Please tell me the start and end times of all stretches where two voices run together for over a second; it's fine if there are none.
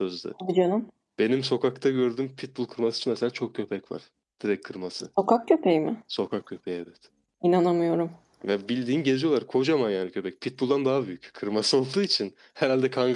none

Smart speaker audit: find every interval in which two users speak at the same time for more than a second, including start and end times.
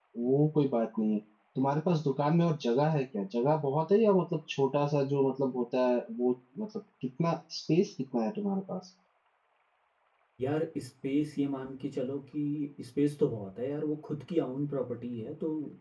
none

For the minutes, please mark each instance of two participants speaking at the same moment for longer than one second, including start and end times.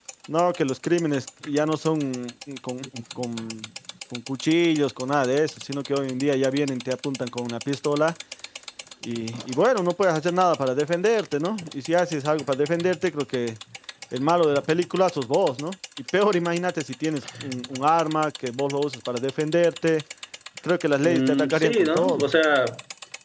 21.0-22.3

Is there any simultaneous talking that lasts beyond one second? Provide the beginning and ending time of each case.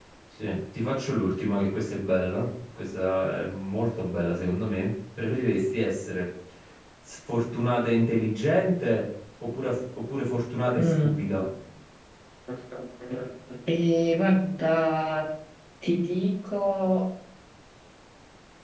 none

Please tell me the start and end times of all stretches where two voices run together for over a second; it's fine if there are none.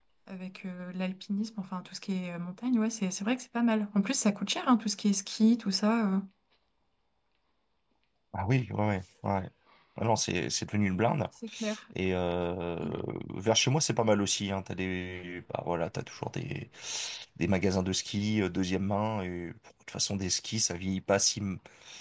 none

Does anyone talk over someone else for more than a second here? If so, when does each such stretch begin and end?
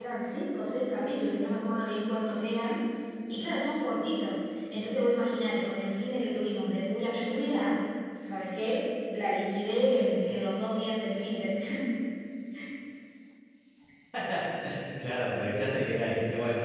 none

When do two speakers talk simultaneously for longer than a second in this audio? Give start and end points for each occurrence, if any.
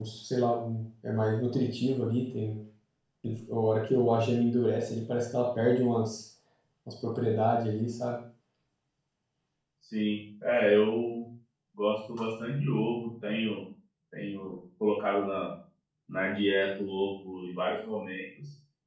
none

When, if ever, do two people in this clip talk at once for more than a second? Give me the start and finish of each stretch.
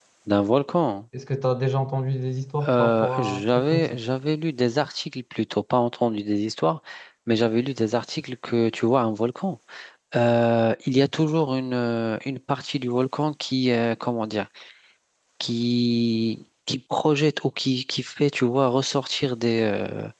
2.7-4.0

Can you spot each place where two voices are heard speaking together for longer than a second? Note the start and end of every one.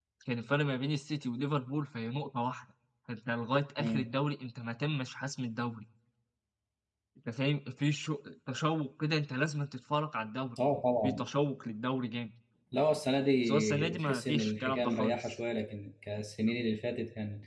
13.4-15.3

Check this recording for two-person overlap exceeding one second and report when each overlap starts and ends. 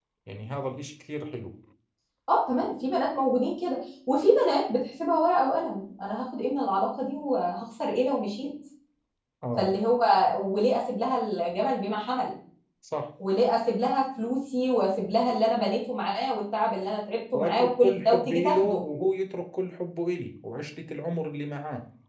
17.3-18.8

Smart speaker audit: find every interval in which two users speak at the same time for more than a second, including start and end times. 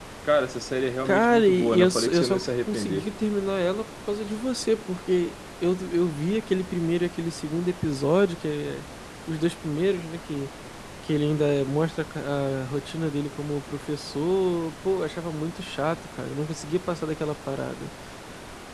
1.0-3.1

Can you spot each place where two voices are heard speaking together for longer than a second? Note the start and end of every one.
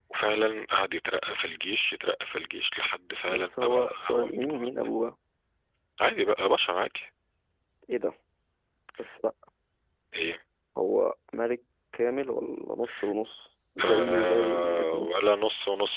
3.3-4.7, 13.8-15.1

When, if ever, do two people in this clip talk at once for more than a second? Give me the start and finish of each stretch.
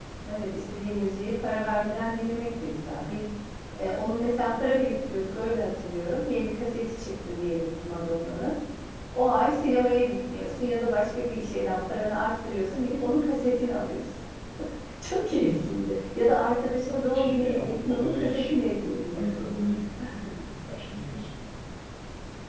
17.1-18.5

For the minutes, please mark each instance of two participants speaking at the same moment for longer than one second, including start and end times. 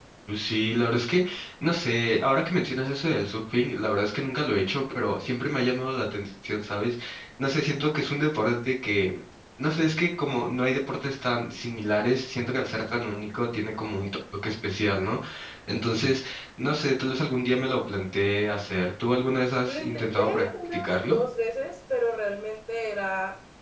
19.7-21.2

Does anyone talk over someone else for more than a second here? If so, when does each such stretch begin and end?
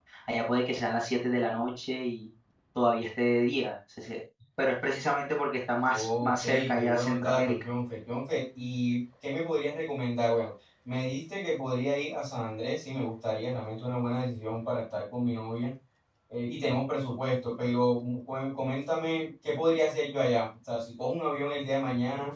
5.9-7.5

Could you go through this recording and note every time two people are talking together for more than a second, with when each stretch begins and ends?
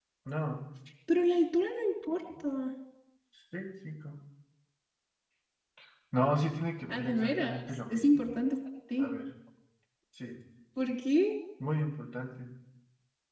6.9-8.3

